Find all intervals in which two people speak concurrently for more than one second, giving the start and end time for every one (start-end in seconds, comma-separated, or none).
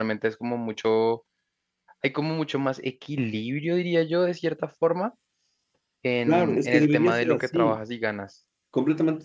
6.3-7.8